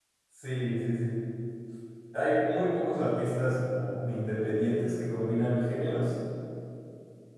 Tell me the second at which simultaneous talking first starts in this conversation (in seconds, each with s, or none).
none